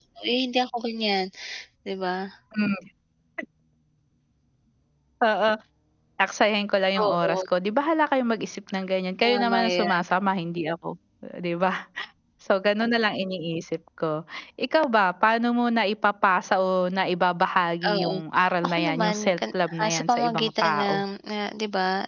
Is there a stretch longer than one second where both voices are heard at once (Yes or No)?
Yes